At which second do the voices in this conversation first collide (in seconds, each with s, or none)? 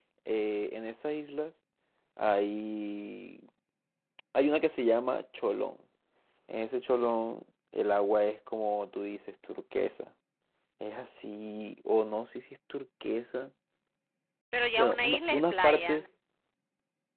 14.8 s